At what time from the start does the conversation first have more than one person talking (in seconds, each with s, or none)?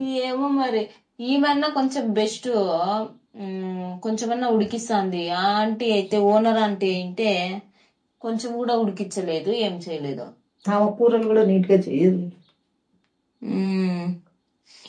none